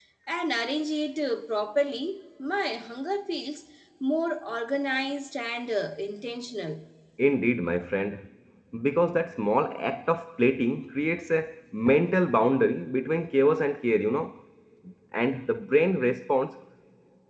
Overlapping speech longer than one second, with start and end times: none

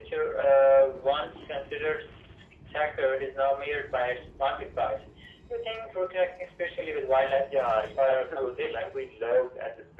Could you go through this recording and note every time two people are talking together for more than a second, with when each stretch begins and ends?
7.5-8.9

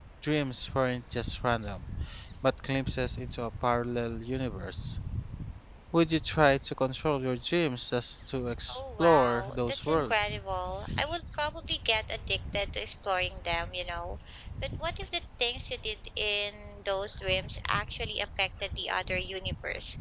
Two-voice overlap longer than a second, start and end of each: 8.7-10.3

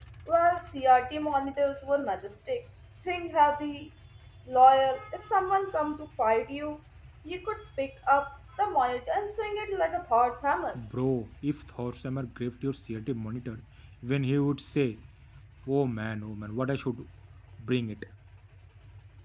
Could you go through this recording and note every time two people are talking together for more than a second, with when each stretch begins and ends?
none

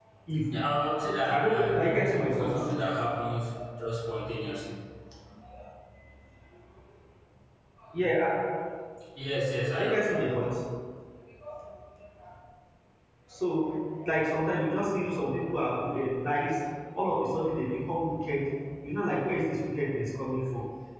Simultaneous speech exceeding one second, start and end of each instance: 1.3-2.6

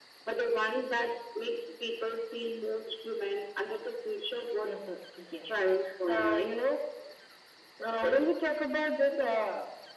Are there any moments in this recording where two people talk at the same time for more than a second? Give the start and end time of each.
none

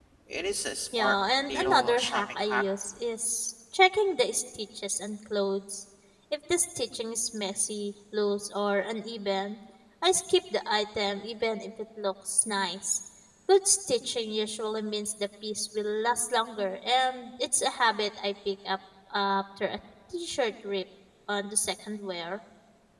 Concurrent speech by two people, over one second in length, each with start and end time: 0.9-2.6

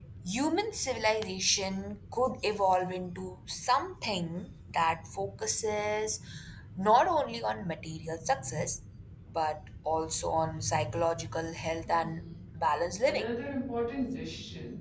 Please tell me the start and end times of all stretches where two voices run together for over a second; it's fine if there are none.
none

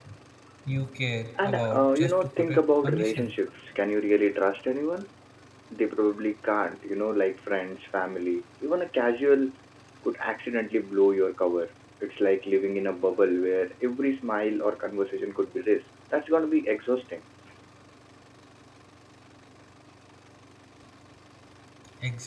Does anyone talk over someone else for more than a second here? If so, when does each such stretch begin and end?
1.4-3.3

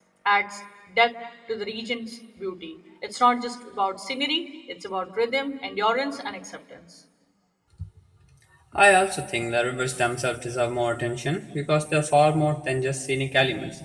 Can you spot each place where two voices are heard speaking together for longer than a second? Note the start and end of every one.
none

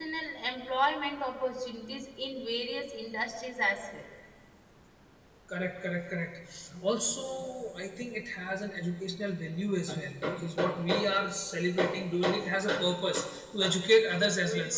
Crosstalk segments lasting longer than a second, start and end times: none

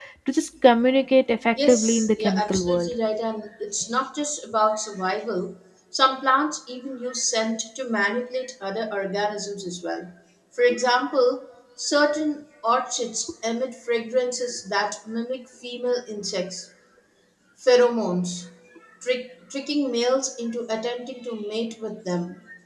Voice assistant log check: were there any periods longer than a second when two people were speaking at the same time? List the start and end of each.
1.7-2.9

